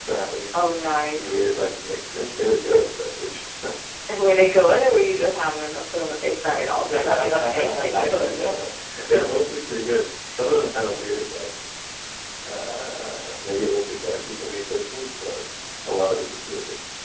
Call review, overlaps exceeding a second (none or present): present